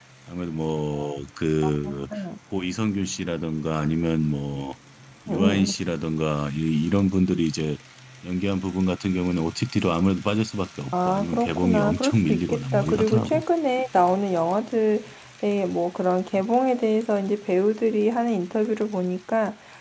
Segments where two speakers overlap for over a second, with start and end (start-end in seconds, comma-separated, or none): 10.9-13.4